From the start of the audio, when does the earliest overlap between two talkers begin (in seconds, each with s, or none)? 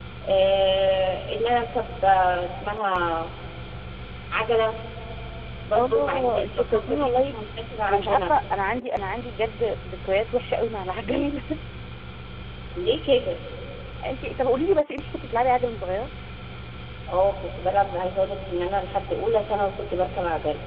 5.7 s